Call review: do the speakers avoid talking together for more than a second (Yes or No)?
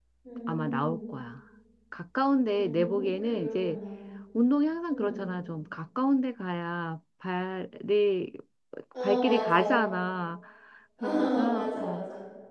No